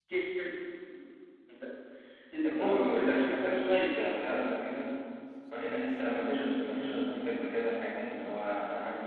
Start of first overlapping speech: 2.5 s

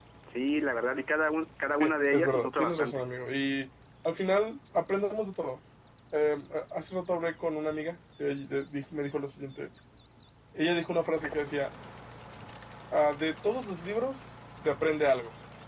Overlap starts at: 1.8 s

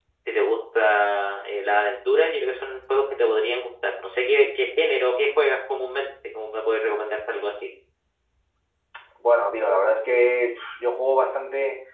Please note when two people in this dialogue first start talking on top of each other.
none

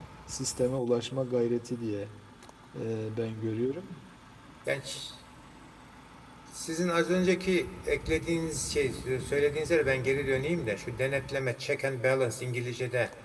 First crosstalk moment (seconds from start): none

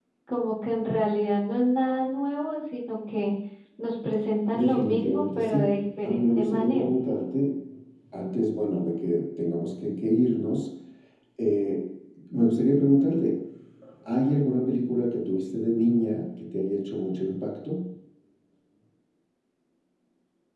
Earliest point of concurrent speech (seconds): 4.5 s

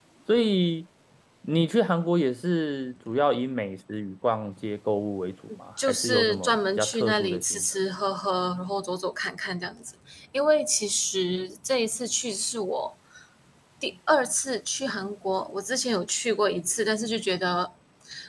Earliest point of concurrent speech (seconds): 5.8 s

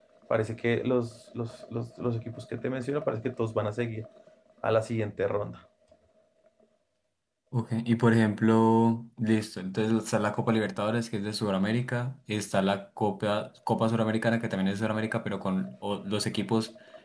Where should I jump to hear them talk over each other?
none

